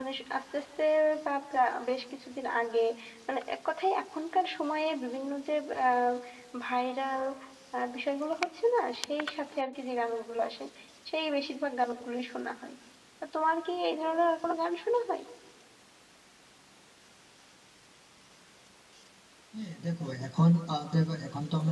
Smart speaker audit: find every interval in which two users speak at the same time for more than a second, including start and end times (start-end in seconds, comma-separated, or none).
none